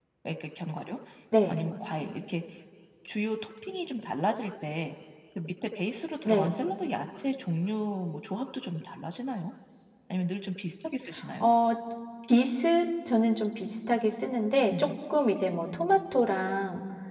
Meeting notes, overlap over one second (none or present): none